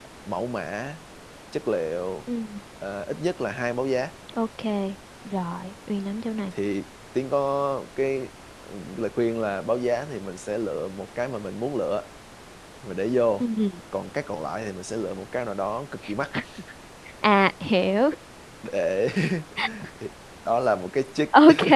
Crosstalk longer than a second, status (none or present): none